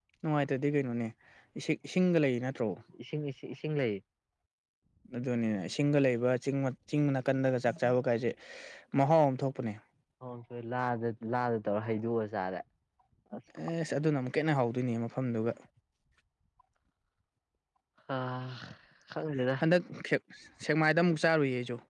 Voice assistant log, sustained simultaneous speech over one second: none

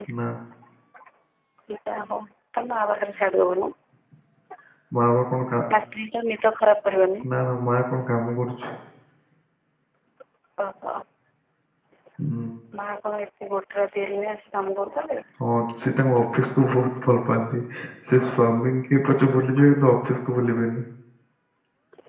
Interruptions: none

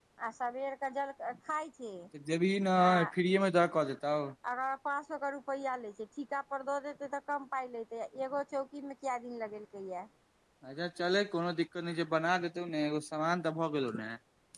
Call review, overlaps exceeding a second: none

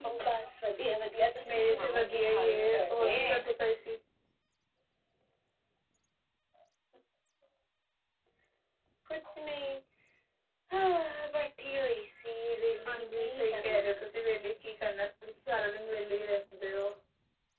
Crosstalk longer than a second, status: present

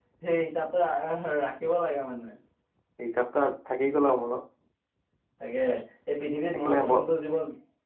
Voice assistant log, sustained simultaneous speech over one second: none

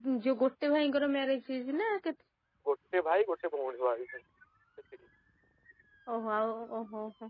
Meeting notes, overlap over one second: none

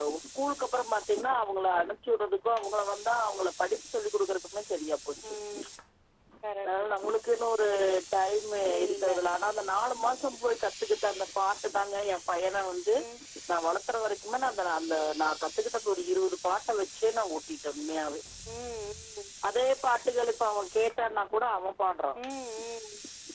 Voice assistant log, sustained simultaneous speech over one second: none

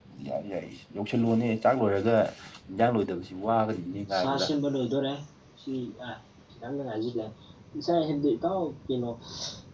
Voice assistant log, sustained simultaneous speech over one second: none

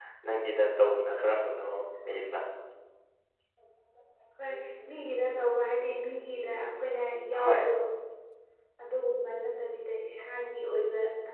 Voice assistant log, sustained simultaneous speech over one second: none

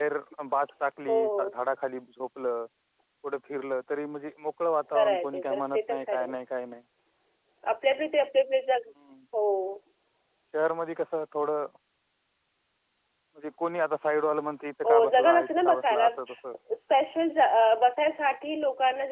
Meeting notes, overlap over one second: present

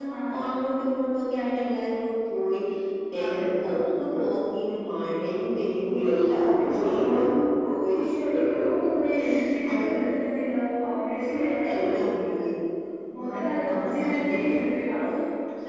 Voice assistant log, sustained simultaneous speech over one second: present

